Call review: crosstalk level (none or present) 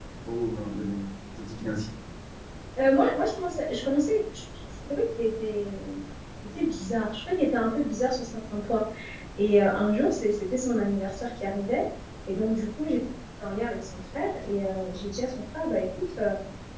none